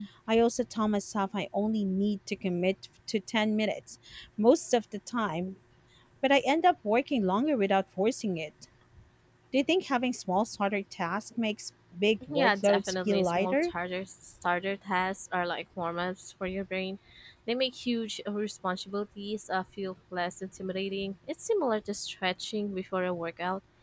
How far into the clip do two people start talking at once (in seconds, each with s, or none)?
12.2 s